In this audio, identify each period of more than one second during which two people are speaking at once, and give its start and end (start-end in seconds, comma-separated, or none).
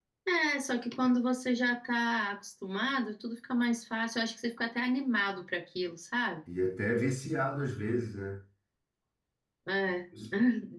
none